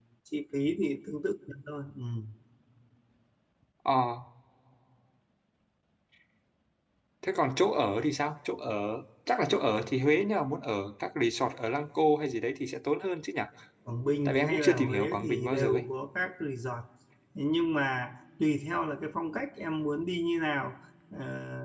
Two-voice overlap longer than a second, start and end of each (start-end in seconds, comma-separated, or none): 14.2-15.8